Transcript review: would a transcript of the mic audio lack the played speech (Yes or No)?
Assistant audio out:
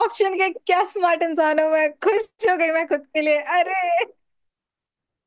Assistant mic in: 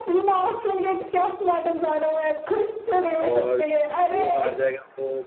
No